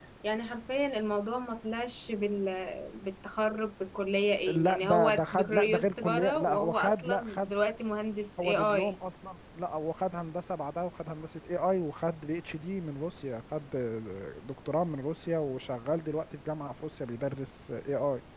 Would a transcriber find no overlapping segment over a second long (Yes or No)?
No